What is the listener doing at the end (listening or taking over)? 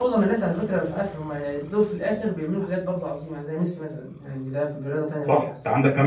taking over